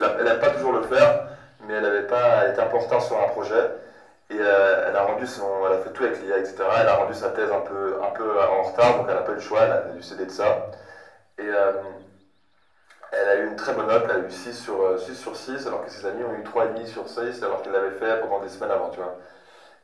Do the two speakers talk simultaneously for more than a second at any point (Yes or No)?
No